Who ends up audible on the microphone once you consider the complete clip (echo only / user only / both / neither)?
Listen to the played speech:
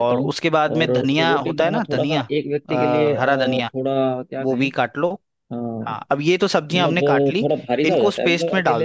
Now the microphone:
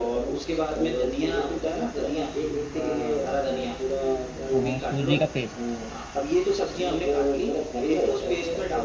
both